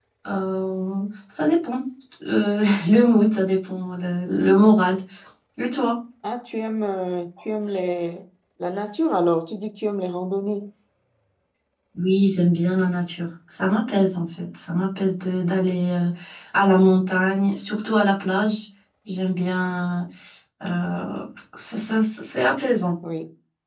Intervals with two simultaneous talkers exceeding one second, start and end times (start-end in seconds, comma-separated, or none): none